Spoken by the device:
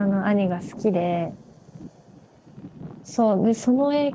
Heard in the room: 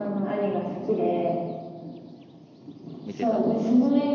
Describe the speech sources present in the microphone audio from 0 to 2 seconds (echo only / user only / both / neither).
echo only